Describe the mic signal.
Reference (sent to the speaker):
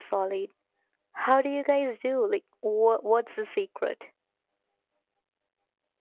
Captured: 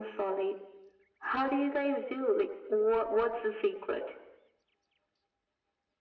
echo only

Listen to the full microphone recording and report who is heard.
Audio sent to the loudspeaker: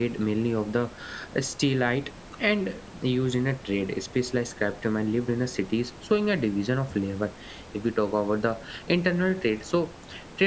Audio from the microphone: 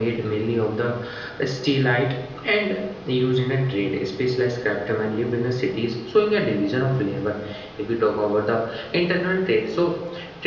echo only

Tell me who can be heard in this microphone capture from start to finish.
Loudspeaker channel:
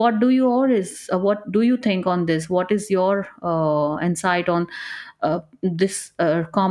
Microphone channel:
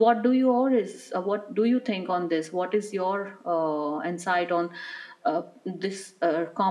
echo only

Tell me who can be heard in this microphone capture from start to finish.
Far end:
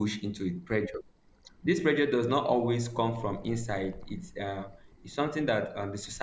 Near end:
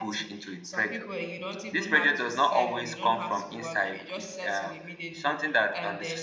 both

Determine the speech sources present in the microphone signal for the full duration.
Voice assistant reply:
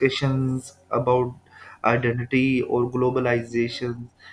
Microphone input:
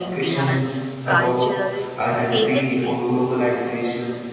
both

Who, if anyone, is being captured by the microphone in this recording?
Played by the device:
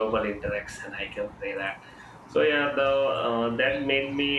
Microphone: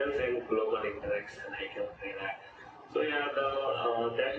echo only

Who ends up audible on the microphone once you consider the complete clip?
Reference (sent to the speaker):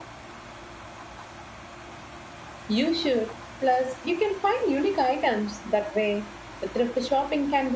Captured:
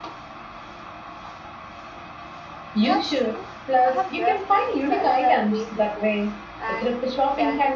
both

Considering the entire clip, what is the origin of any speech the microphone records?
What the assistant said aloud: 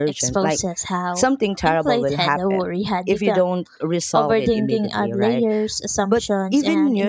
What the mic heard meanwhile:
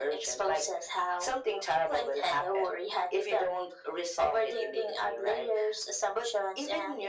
echo only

